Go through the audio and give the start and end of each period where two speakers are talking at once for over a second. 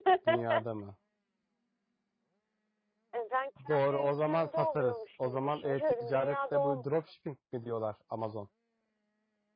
3.7-6.8

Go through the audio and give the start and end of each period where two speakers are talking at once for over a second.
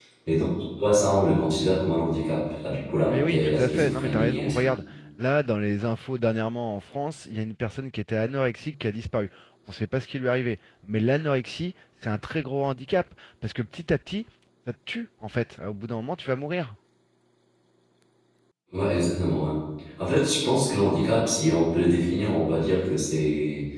3.1-4.6

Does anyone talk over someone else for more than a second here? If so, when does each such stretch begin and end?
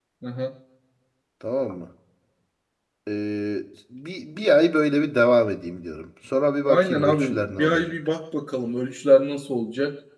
6.6-7.9

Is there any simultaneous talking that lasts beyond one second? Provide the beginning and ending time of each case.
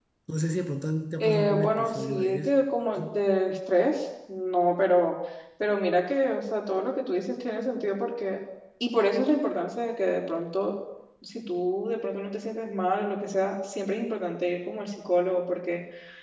1.2-2.5

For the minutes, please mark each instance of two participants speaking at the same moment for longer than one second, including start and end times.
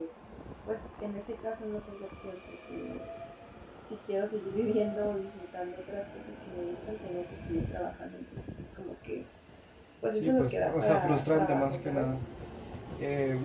10.1-12.1

